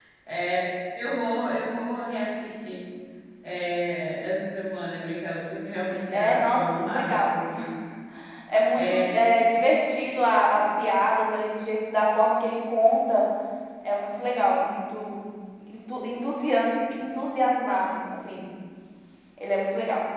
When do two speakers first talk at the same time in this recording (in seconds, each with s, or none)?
6.1 s